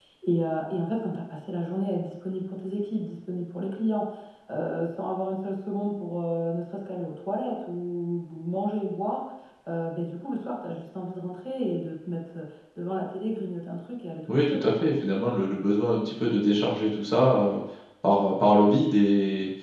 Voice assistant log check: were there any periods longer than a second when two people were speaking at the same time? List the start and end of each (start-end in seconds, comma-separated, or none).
none